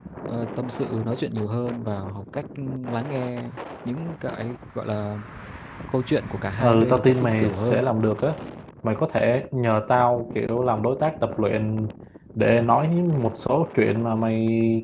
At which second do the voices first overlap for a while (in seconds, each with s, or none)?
6.6 s